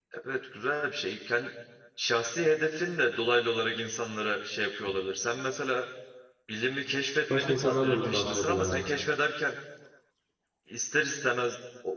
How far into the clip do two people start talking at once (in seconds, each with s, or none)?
7.3 s